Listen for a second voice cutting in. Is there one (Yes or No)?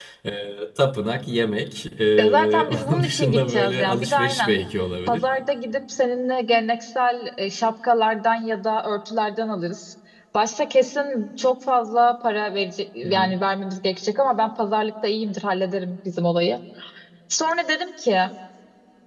Yes